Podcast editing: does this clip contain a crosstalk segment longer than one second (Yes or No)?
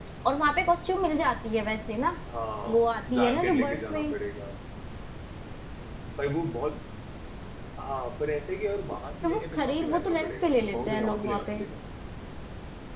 Yes